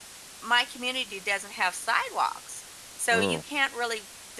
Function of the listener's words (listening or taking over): listening